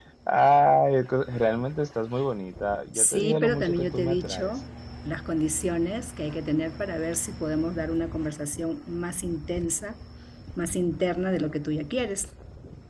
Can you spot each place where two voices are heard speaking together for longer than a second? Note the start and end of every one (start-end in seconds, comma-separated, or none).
2.9-4.5